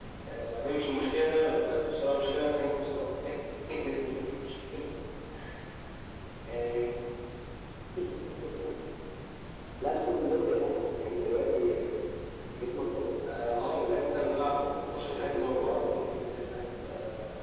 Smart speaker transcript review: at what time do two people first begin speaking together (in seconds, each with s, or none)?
13.4 s